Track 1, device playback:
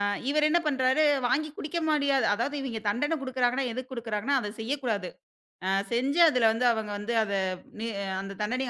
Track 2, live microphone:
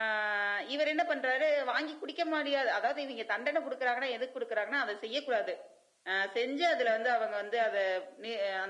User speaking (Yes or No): No